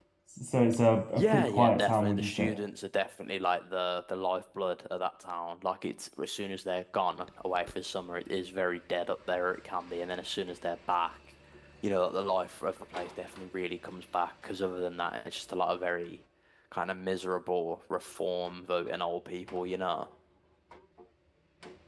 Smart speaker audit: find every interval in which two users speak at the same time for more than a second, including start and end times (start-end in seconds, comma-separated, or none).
1.1-2.6